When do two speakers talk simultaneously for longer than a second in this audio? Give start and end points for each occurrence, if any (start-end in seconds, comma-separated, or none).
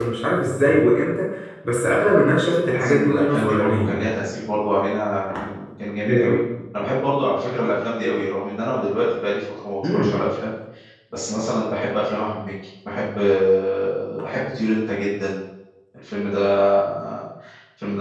2.7-4.0